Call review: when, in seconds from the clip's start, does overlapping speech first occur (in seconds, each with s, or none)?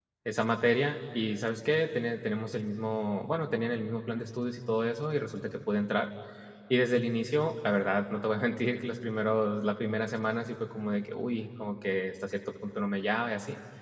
none